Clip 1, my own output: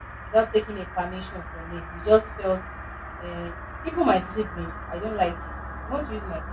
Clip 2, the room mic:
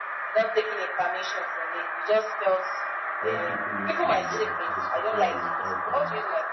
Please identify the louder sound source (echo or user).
echo